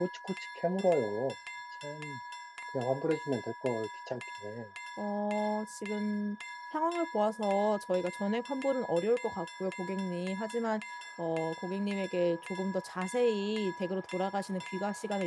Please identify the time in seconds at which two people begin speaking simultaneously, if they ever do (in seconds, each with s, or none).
none